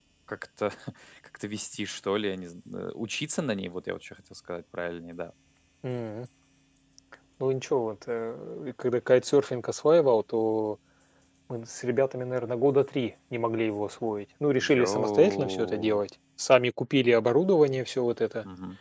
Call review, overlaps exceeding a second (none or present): present